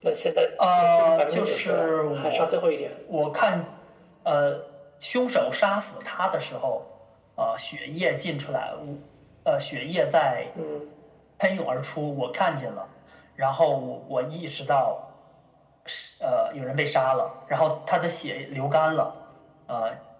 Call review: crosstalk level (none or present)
present